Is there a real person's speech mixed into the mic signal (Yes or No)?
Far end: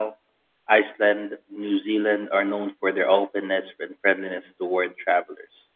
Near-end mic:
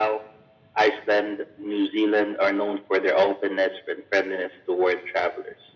No